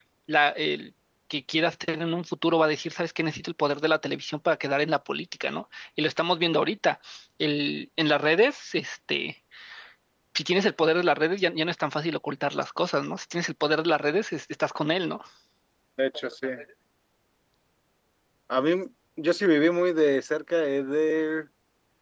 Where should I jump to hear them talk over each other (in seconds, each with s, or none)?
none